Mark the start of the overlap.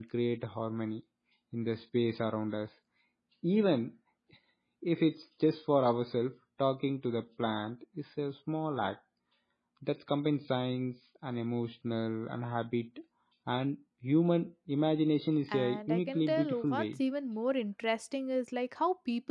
15.5 s

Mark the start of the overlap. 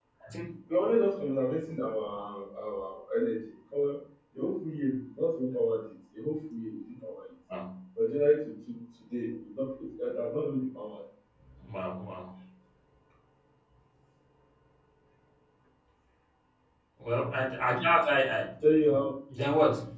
none

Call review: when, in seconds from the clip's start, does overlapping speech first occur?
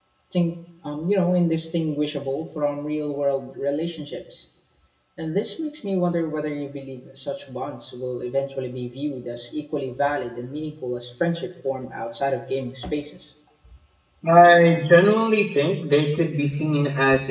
none

